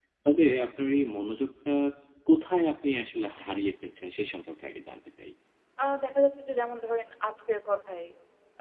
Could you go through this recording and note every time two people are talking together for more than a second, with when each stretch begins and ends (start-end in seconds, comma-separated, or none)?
none